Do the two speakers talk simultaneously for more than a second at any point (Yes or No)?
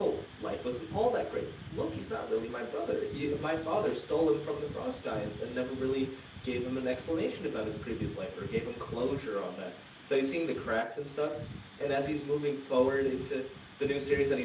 No